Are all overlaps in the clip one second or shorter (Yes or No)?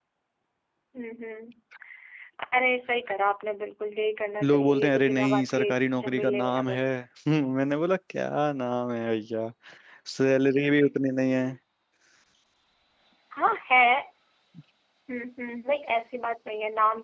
No